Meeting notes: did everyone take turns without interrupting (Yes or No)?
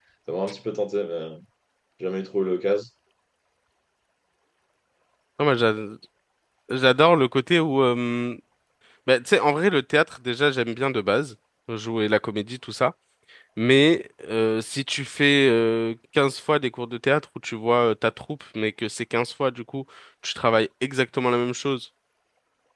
Yes